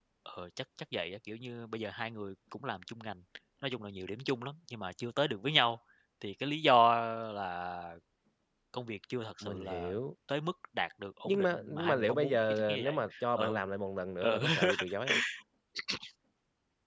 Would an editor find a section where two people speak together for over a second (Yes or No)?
Yes